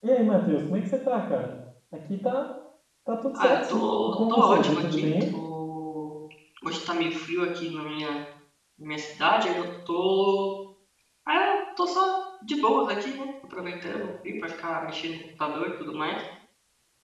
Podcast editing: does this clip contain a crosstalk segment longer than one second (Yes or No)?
Yes